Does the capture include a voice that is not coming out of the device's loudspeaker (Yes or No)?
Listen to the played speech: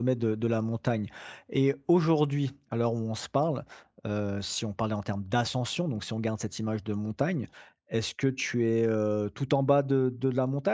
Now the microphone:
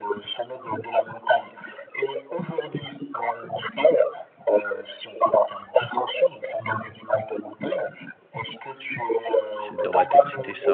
Yes